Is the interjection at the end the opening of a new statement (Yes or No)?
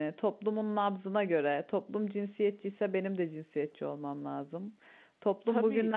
No